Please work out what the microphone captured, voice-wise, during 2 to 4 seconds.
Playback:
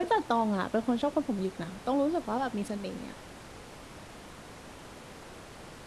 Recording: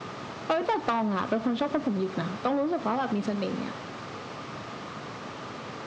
echo only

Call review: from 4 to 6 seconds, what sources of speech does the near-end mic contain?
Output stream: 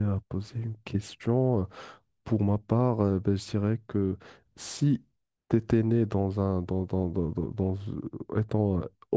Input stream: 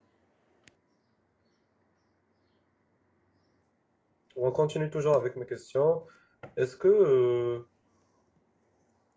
user only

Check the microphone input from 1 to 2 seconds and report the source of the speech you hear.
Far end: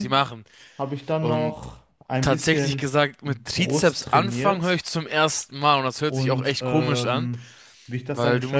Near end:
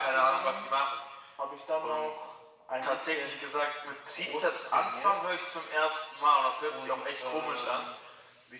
echo only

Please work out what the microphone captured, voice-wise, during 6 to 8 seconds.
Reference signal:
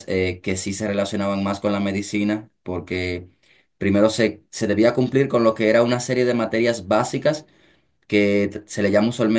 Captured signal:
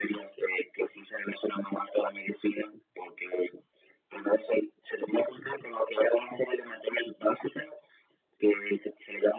echo only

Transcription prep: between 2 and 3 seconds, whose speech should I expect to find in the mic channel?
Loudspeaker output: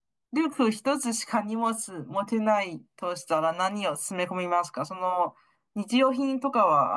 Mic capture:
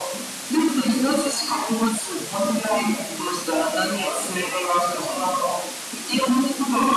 echo only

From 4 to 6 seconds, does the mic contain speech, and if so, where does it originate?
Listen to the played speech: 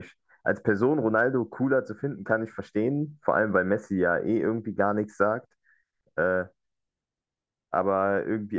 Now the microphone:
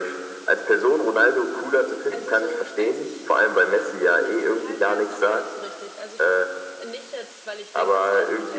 both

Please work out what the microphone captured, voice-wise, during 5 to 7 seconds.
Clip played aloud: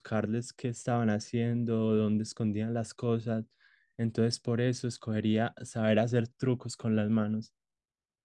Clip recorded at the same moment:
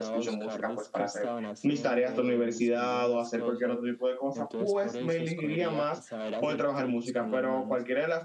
both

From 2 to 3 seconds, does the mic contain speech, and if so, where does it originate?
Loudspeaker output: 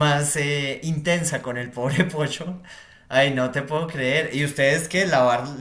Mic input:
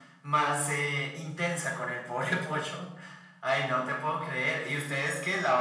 echo only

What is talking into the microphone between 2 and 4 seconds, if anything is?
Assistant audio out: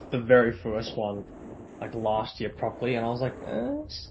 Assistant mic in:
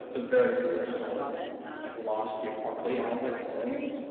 both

